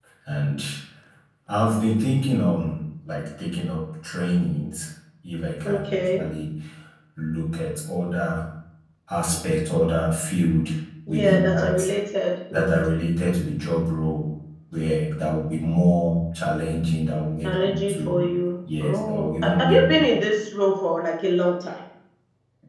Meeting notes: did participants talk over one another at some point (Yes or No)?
Yes